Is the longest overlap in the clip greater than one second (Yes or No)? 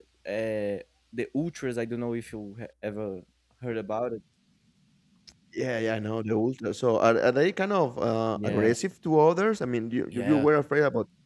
No